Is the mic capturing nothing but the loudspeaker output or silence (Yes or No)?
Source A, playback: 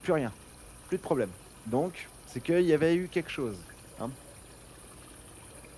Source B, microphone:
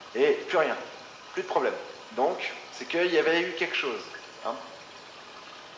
Yes